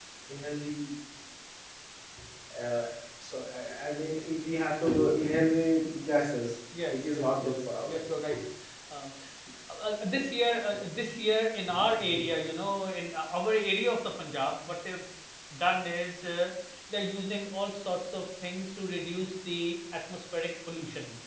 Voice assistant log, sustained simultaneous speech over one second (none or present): present